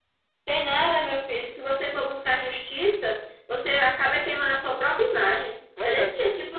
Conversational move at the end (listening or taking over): listening